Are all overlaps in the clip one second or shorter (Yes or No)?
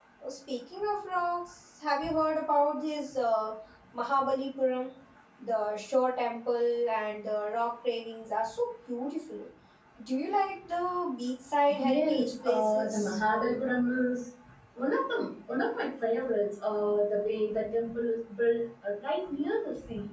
No